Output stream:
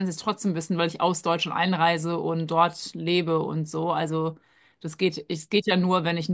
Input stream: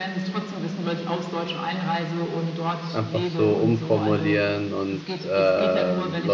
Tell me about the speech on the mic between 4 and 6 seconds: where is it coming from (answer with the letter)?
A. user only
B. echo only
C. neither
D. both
D